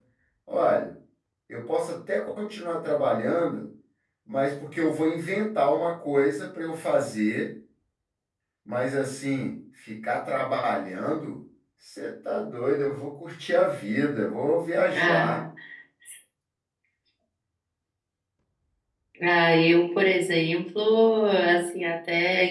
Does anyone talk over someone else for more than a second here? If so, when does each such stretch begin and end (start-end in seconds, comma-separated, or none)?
none